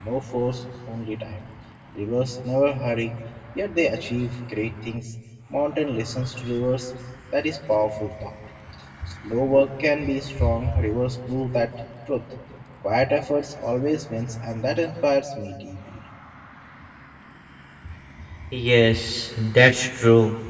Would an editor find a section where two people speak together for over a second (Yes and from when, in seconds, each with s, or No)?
No